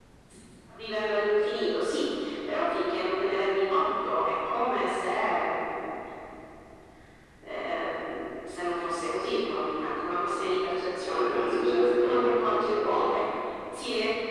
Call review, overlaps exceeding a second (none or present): present